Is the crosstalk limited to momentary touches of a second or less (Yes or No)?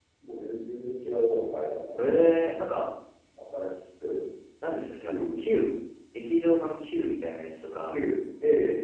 Yes